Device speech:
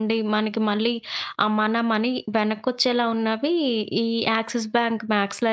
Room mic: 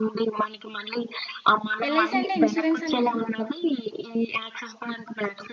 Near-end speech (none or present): present